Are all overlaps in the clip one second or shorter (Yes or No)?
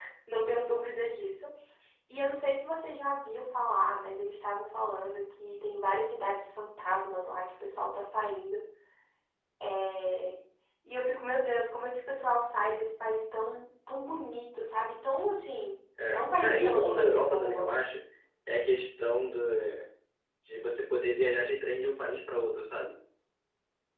No